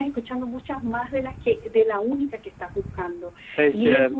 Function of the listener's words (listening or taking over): listening